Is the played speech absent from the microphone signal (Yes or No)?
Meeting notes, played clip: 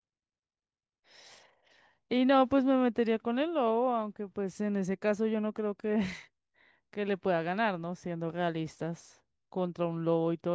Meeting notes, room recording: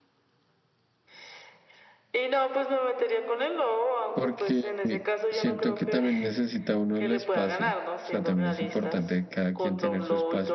No